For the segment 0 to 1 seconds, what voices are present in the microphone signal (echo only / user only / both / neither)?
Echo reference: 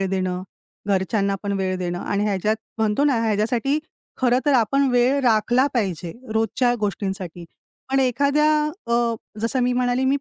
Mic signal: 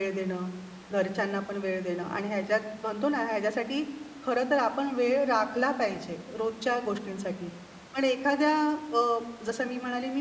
echo only